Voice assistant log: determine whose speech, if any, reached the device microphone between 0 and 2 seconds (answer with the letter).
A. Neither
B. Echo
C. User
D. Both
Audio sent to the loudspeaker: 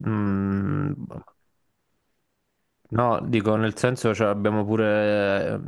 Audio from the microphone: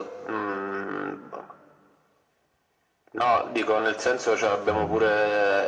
B